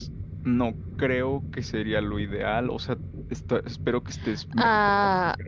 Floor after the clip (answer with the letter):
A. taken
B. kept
A